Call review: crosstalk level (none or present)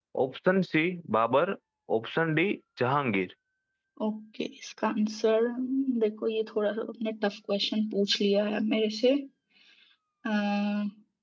none